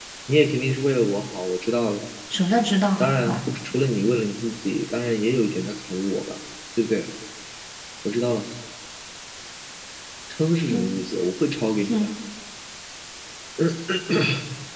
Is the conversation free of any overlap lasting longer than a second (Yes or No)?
Yes